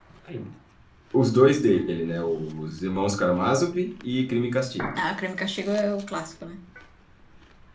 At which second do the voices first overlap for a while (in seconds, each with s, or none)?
none